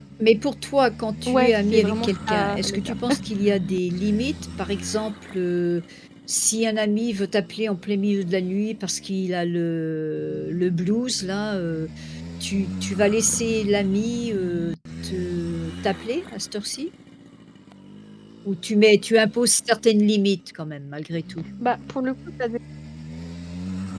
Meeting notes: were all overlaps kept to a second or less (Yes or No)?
No